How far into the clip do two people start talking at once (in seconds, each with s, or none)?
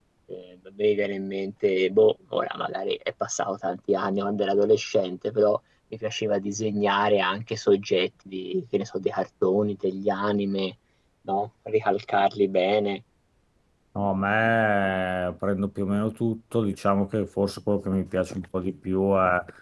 none